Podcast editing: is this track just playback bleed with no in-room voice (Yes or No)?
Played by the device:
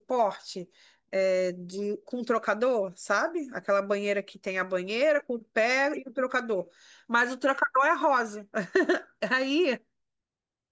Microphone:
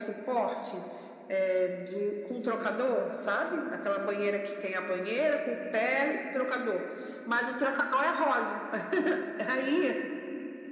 Yes